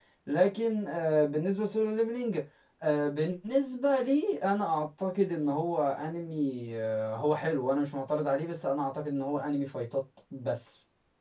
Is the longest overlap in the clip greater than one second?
No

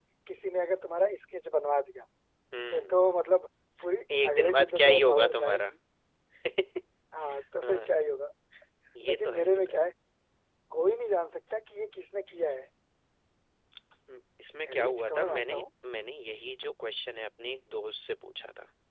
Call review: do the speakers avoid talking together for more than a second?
No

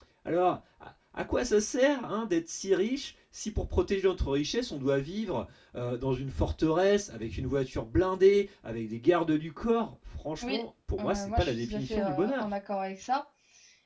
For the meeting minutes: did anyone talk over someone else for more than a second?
Yes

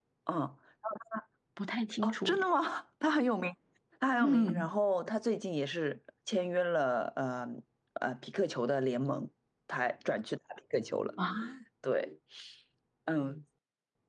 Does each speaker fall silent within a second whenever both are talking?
Yes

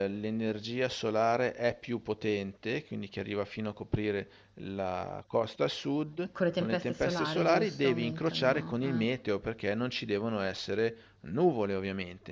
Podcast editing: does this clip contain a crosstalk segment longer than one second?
Yes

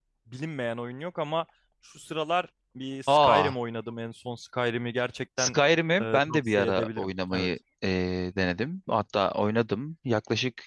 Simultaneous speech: Yes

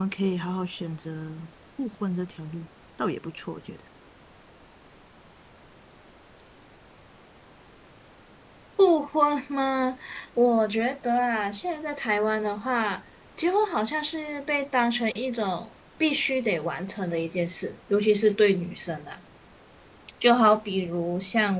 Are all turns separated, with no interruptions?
Yes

